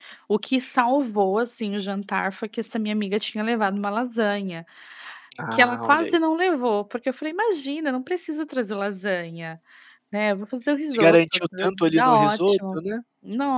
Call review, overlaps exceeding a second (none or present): present